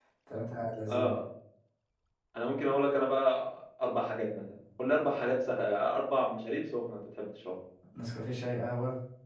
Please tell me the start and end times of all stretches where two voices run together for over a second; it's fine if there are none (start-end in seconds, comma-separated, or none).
none